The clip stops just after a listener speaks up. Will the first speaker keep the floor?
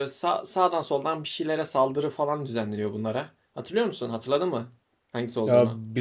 No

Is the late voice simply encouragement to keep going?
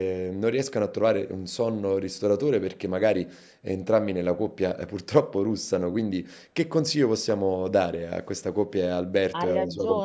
No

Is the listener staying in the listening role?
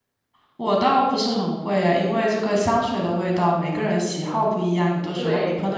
Yes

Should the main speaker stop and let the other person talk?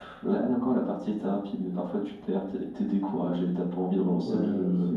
Yes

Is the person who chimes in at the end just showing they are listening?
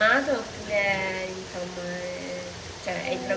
No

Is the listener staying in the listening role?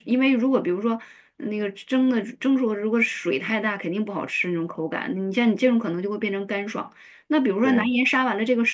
Yes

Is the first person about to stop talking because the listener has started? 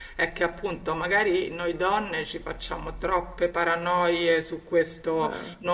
No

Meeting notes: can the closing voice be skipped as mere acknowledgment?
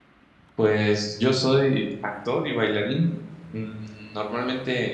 Yes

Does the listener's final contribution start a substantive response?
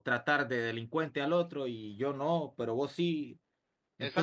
Yes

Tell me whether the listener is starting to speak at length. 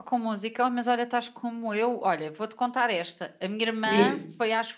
No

